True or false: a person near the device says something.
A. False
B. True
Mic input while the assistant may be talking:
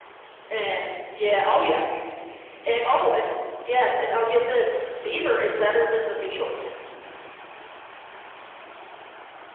A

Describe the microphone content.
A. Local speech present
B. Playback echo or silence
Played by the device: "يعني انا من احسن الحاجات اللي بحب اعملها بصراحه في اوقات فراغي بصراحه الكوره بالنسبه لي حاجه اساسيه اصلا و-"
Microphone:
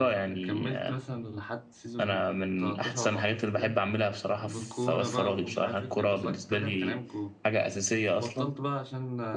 A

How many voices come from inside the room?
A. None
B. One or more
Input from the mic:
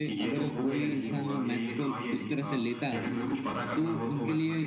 B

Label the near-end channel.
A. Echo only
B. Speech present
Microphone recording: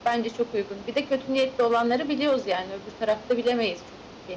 A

